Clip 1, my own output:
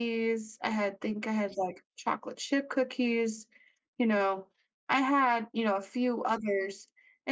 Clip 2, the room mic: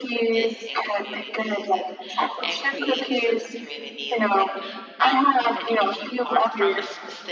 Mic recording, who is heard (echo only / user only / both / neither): both